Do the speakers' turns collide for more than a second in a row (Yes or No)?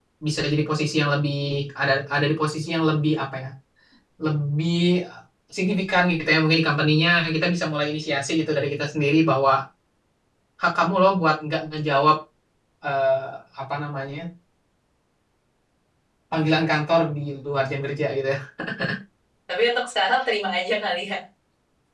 No